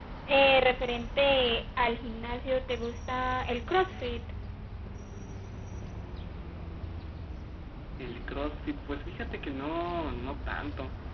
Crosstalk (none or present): none